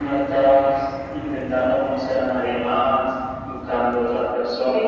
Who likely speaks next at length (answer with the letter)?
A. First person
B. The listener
B